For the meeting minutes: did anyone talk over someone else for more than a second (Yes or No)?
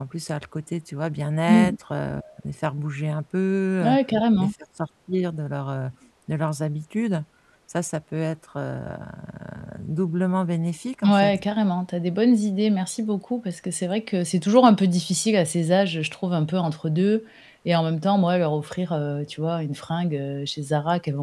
No